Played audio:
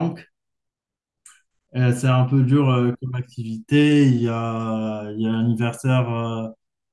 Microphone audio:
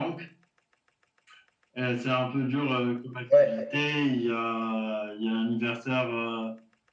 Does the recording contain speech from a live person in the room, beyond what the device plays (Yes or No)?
Yes